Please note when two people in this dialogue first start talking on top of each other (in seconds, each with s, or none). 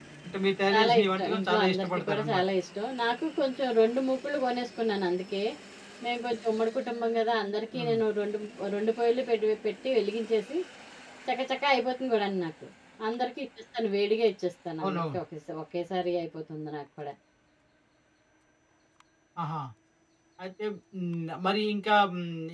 0.7 s